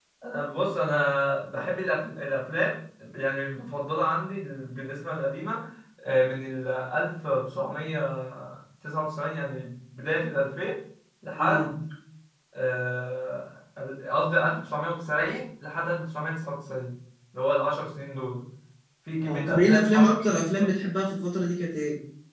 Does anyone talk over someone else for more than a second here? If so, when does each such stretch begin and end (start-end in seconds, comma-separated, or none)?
19.2-20.8